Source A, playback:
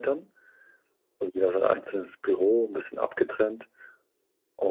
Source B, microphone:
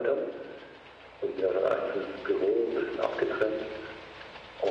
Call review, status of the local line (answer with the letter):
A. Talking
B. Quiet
B